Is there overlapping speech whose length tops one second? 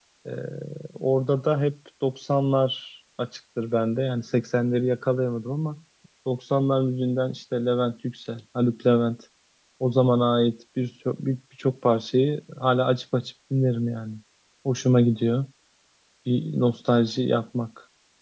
No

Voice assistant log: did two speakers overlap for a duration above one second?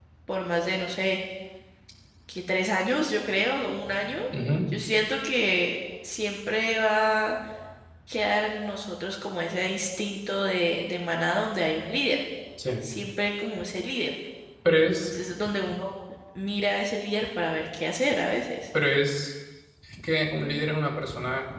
No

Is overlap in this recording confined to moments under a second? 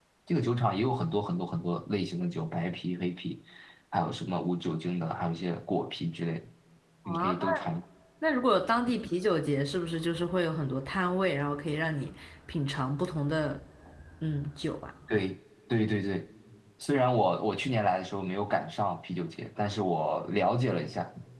Yes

